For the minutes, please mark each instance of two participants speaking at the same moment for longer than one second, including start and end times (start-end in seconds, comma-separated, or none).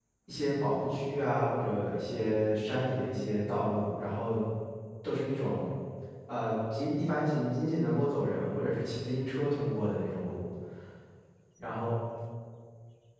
none